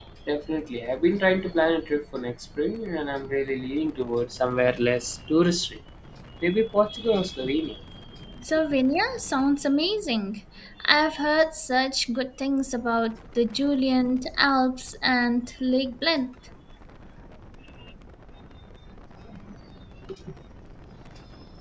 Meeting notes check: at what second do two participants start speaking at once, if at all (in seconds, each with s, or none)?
none